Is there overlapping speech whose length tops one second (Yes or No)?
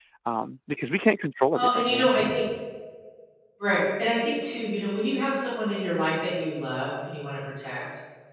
No